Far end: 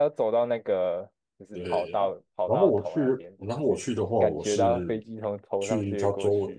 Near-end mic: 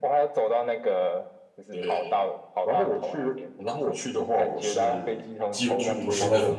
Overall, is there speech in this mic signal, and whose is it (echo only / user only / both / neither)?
both